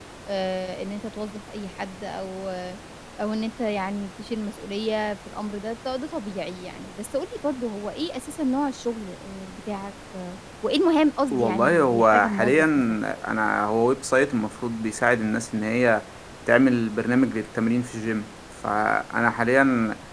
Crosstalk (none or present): present